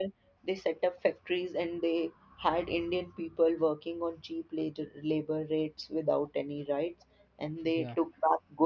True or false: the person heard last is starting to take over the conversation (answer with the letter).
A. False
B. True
A